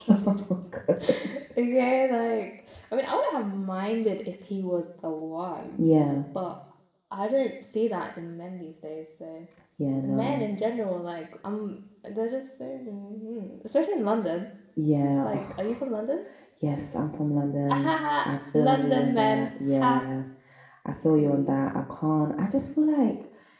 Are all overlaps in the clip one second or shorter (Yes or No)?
No